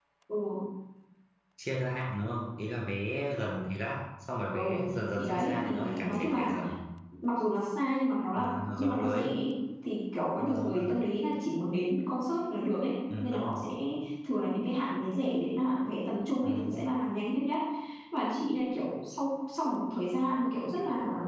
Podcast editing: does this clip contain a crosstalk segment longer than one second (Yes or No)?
Yes